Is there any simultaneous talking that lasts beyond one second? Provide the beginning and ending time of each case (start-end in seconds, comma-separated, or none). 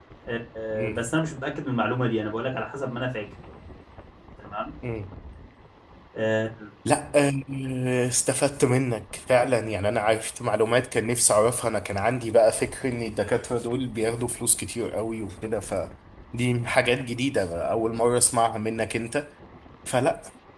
none